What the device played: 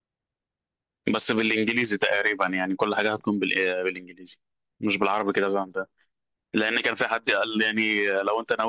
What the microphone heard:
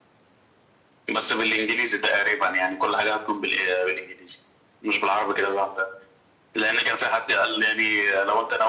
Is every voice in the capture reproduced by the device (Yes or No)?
Yes